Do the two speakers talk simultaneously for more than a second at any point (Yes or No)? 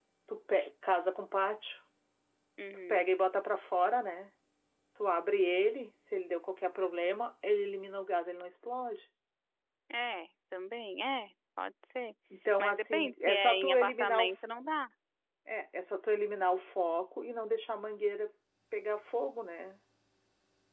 Yes